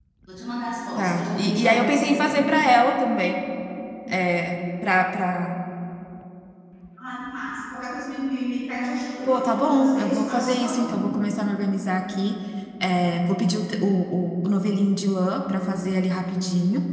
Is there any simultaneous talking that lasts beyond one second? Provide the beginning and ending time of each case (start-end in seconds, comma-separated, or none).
1.0-2.4, 9.3-11.1